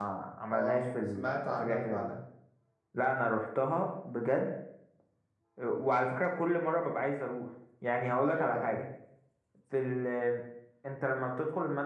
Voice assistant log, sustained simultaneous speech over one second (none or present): present